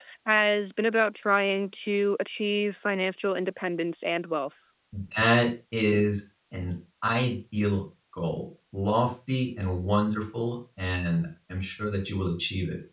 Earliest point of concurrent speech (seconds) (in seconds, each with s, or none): none